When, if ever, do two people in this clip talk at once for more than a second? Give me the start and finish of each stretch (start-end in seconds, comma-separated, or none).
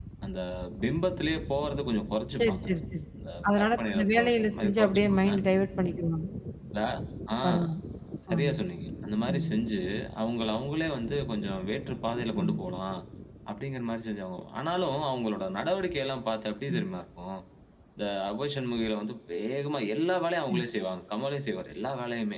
3.6-5.3